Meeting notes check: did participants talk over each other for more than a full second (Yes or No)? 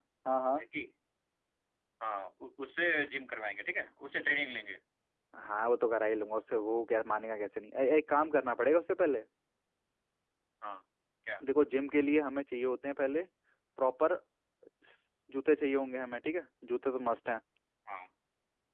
No